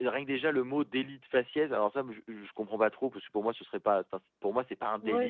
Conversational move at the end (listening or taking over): taking over